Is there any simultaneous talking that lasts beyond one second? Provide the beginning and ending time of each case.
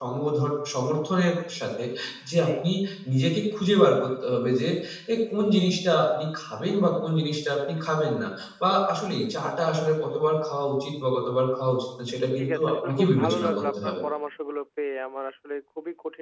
12.4-14.0

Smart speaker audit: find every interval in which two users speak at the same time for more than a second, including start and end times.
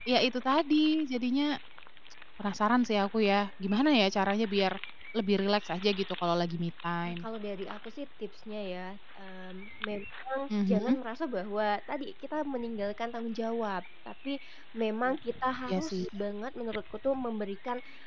none

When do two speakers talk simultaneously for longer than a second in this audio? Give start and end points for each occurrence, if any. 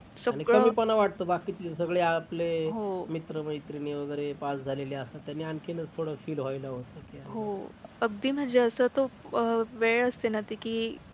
none

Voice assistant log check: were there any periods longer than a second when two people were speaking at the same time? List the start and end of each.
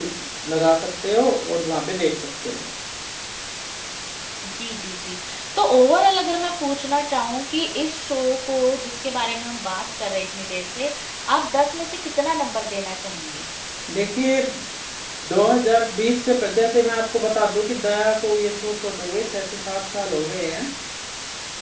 none

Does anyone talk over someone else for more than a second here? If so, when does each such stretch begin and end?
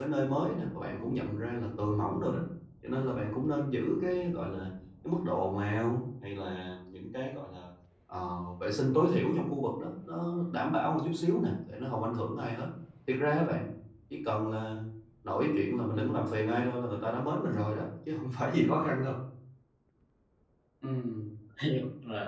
none

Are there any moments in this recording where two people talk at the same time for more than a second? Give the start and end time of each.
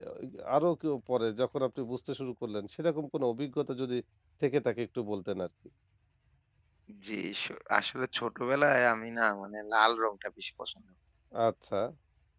none

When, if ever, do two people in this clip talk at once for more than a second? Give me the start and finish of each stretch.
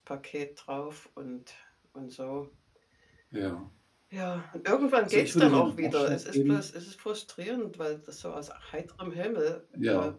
5.1-6.6

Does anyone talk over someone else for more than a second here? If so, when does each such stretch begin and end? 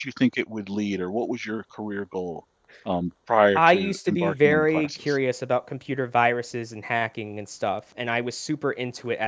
3.6-5.2

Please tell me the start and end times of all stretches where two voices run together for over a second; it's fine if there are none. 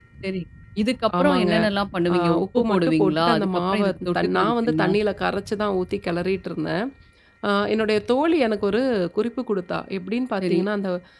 2.1-4.8

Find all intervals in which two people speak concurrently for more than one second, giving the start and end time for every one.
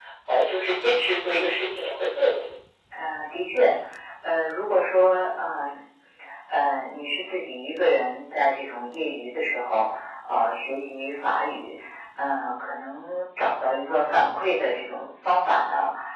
none

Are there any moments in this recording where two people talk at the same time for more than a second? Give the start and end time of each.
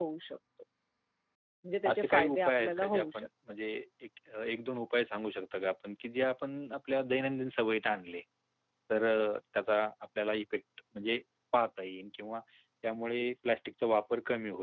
1.9-3.3

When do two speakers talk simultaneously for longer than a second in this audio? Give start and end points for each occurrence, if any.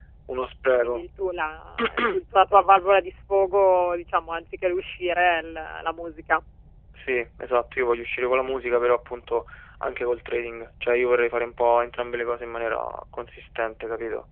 none

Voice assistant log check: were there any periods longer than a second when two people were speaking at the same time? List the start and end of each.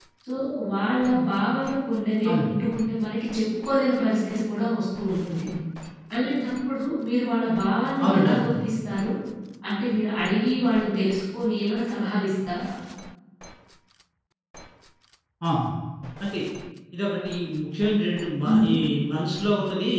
none

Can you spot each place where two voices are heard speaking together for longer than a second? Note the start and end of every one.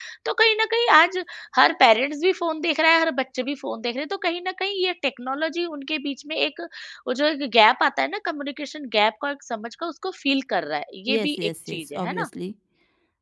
11.1-12.3

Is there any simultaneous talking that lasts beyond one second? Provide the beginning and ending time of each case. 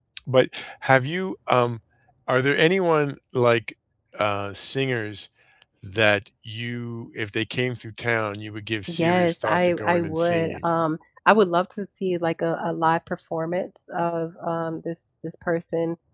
8.9-10.6

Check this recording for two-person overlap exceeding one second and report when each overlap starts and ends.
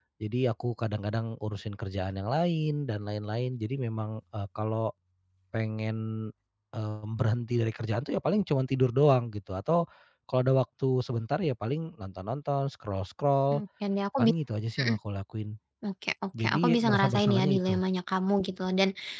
16.4-17.8

